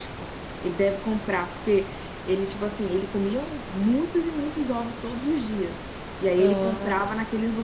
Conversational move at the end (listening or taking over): listening